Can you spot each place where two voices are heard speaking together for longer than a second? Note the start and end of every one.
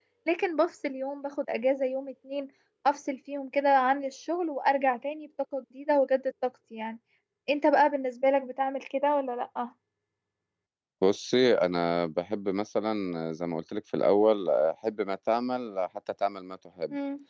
none

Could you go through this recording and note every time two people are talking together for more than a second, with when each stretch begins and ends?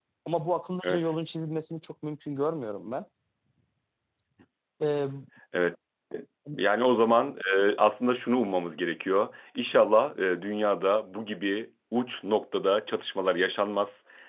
none

